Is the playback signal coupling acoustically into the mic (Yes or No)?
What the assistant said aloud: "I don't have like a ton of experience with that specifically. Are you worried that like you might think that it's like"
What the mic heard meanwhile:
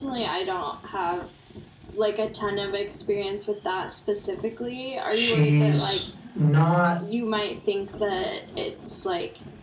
Yes